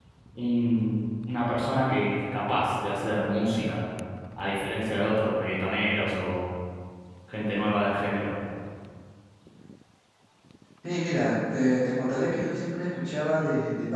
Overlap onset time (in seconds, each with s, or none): none